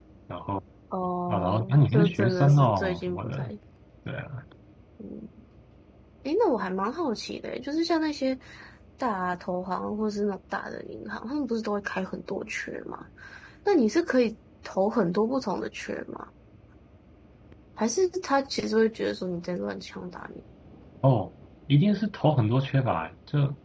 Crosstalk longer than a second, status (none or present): present